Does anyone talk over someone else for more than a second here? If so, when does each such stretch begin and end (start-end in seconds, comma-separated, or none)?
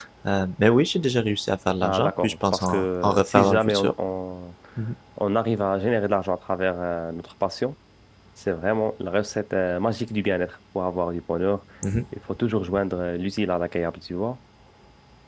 1.8-3.9